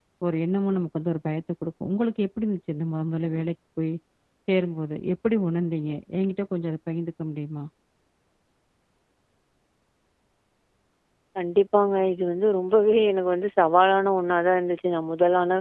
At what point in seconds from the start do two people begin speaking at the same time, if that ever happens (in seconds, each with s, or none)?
none